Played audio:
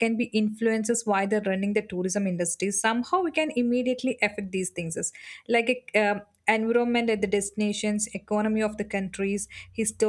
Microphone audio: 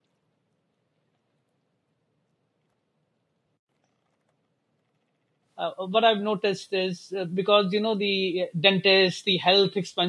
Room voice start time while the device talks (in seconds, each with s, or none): 5.6 s